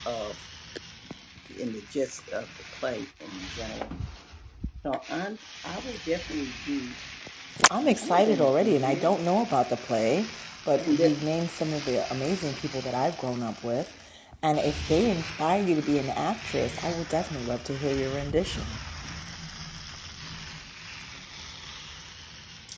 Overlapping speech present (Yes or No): Yes